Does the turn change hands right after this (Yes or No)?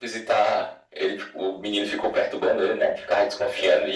No